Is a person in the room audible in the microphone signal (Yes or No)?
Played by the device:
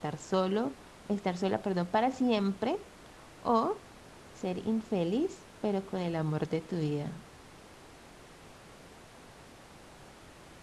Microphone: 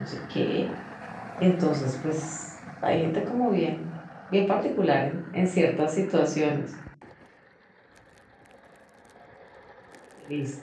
Yes